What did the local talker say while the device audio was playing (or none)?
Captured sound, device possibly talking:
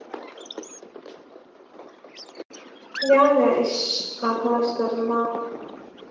Yani iş arkadaşlarına